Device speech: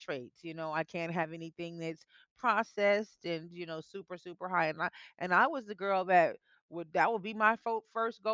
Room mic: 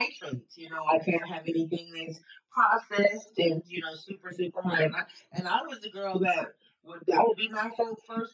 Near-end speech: none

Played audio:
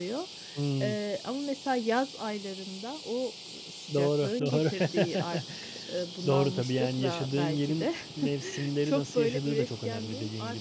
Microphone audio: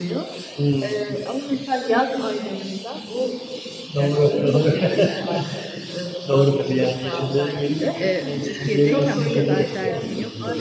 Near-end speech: present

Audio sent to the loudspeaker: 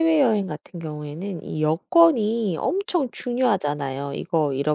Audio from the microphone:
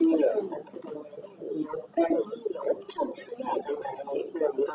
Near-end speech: none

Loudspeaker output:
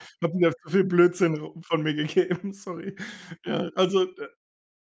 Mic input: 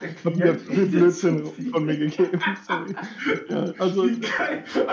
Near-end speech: present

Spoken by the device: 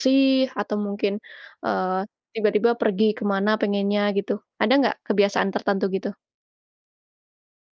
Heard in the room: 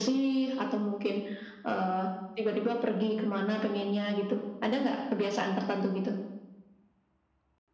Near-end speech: none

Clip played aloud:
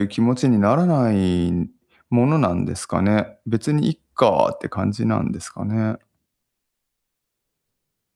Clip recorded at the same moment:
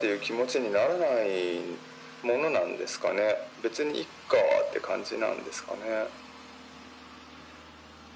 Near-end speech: none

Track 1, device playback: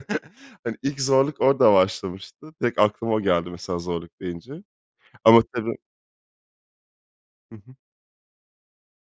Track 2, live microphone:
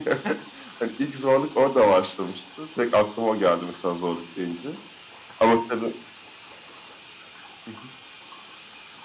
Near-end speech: none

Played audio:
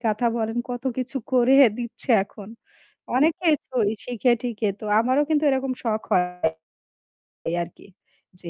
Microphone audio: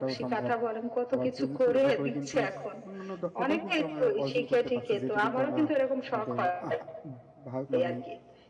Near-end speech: present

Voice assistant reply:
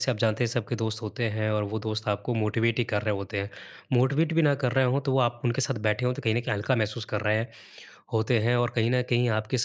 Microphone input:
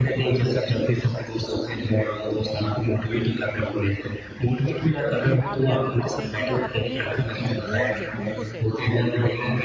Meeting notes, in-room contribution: present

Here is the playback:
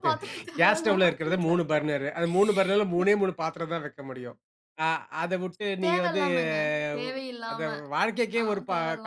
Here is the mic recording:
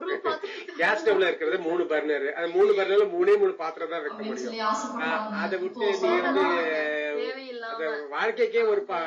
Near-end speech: present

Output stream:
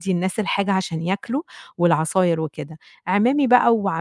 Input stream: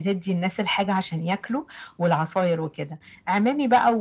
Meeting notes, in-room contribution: none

